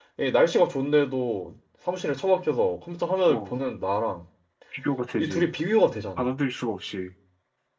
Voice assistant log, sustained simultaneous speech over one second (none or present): none